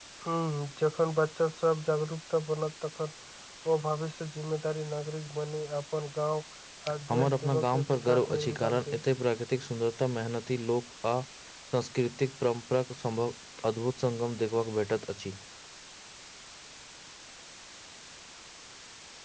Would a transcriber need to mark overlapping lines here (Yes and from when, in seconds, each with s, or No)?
Yes, from 7.1 s